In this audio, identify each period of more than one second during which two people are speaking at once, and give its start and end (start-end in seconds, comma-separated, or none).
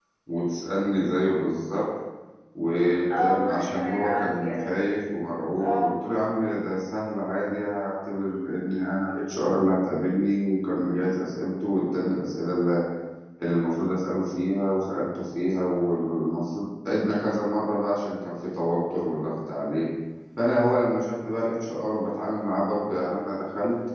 3.2-4.7